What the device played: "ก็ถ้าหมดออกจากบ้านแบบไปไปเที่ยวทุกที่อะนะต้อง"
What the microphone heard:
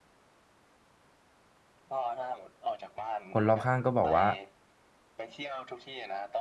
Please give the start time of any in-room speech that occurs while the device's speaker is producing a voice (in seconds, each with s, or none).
3.3 s